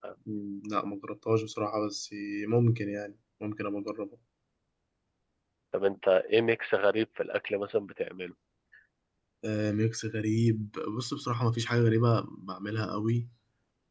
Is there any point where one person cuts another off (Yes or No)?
No